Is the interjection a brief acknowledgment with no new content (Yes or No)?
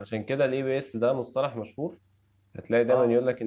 Yes